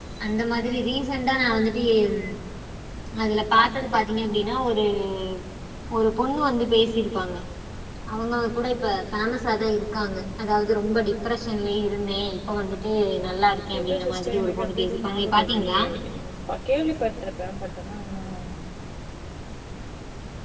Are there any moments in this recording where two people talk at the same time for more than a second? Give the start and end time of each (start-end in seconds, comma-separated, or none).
13.8-15.8